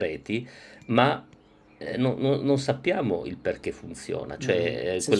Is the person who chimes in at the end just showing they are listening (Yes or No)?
No